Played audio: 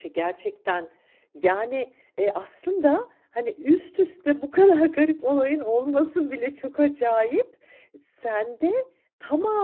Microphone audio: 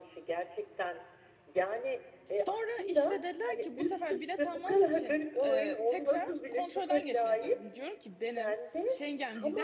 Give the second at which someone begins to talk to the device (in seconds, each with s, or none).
2.4 s